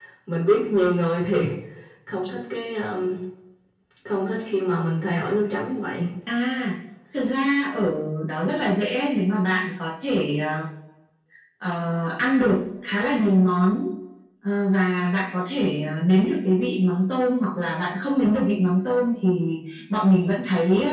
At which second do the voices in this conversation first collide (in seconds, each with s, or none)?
none